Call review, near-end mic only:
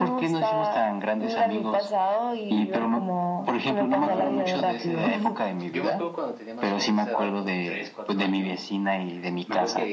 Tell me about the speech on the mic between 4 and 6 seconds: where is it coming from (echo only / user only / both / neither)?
both